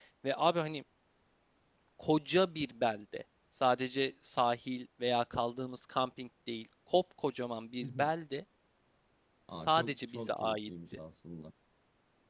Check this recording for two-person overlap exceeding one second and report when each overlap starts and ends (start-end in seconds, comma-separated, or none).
9.5-10.7